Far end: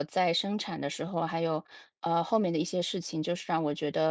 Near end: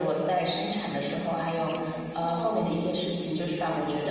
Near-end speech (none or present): present